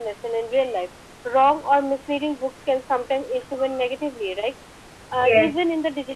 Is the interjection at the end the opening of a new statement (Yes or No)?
No